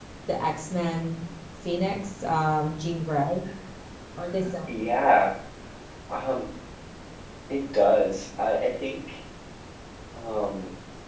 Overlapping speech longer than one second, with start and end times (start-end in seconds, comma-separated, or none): none